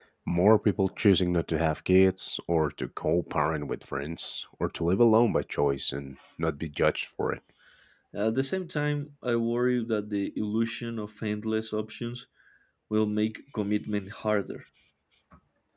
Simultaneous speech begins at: none

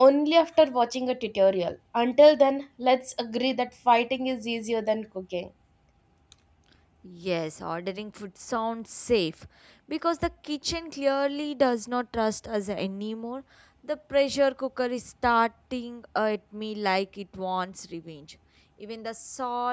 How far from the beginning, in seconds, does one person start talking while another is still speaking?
none

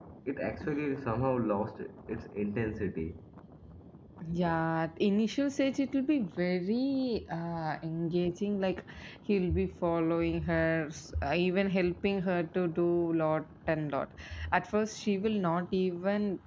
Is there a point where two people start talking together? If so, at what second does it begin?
none

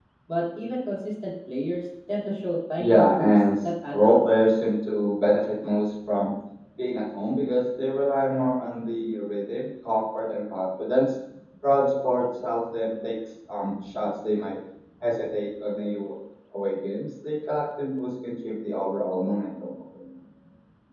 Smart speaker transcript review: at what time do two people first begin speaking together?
2.8 s

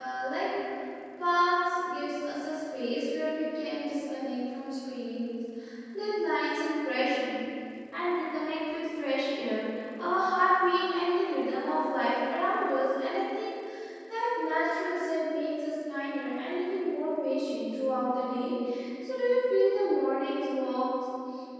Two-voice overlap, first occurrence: none

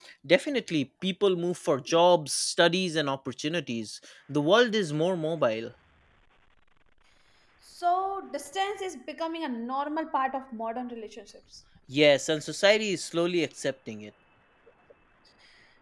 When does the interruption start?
none

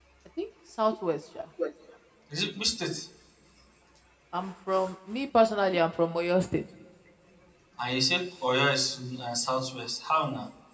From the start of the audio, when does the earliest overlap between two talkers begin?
none

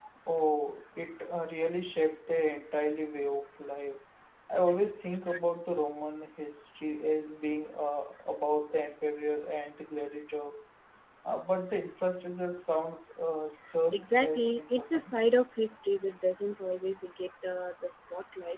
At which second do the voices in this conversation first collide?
13.9 s

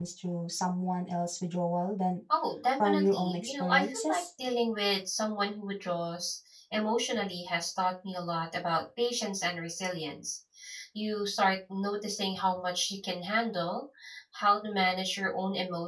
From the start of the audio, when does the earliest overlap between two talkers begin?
2.8 s

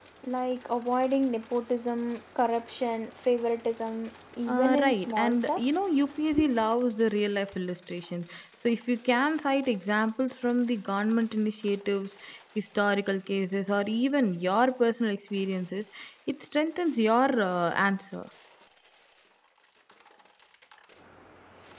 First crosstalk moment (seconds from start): 4.5 s

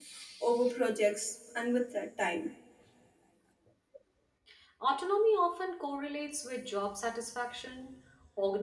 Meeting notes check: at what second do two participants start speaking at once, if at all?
none

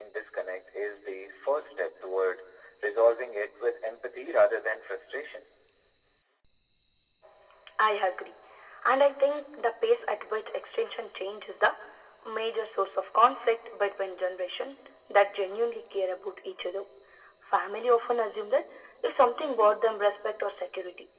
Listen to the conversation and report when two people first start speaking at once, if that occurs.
none

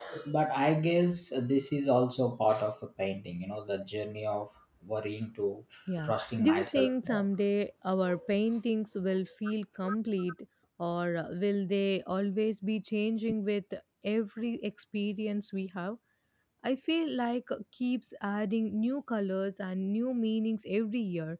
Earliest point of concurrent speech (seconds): 6.0 s

